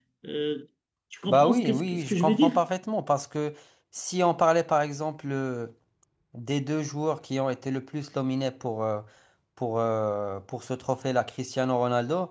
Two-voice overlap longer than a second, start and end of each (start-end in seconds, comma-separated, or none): 1.3-2.5